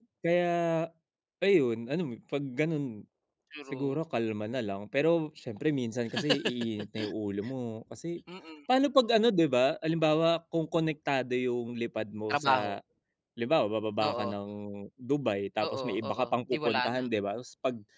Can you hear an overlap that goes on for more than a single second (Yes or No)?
Yes